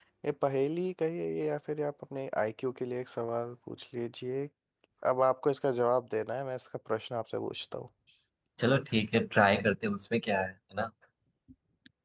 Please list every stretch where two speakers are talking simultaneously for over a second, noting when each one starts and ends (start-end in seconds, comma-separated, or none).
none